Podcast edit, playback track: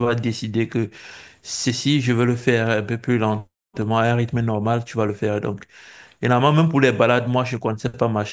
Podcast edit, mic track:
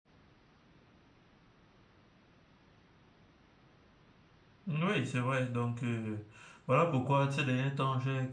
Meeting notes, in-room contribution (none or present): present